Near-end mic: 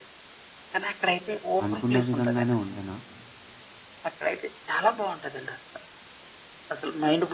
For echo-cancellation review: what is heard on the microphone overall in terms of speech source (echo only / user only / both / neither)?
both